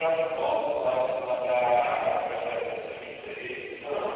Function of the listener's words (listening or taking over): listening